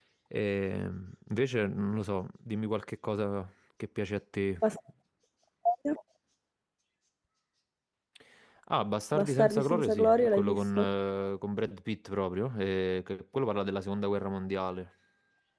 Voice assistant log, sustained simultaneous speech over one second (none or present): present